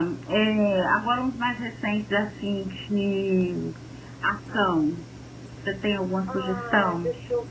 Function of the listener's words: taking over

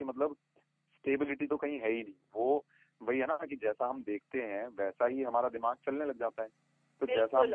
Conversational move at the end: taking over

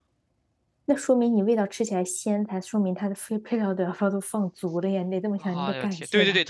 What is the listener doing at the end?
taking over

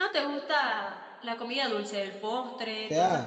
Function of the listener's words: taking over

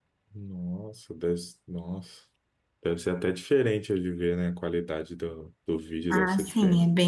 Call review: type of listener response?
taking over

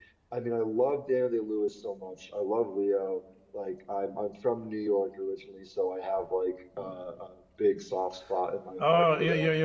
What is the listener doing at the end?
taking over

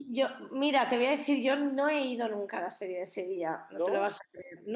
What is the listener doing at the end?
listening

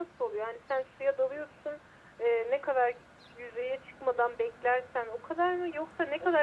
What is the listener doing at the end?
taking over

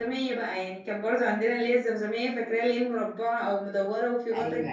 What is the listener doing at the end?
taking over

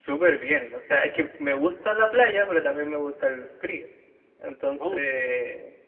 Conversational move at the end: listening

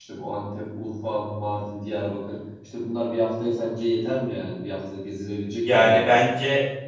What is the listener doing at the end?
taking over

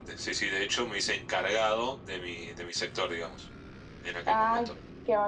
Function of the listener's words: taking over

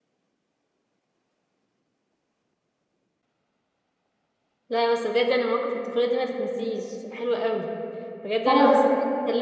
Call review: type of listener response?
listening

